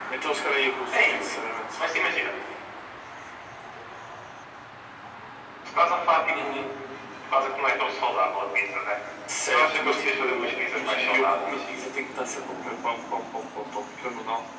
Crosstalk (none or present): present